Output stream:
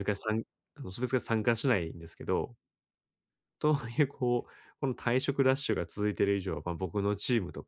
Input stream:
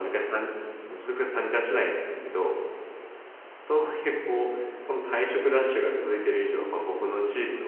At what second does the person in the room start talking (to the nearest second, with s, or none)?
none